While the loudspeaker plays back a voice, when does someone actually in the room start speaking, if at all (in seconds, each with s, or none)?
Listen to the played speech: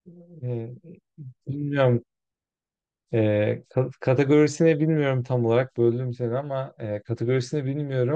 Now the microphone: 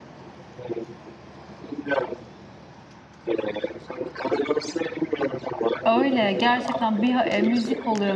5.8 s